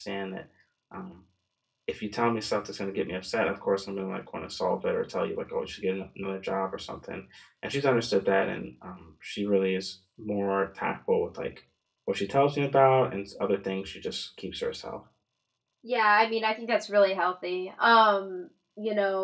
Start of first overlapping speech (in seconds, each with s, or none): none